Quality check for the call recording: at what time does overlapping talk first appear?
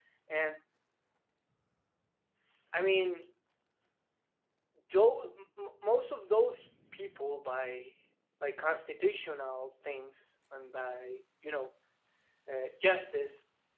none

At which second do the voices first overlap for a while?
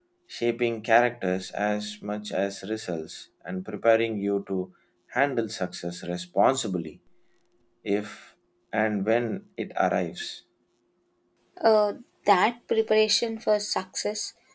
none

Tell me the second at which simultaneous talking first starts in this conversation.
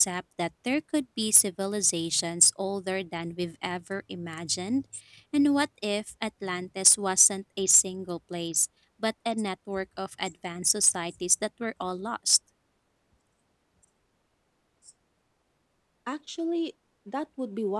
none

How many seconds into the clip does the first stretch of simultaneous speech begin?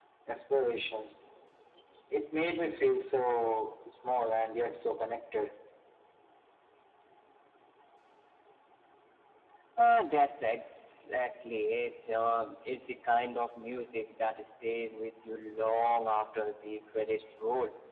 none

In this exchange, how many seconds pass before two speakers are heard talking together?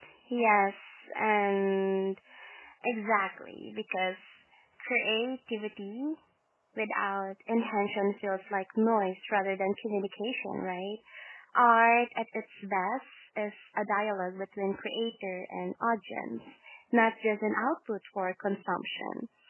none

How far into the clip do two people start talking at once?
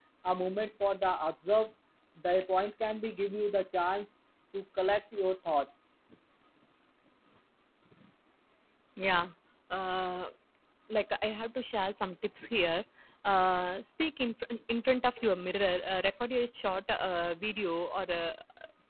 none

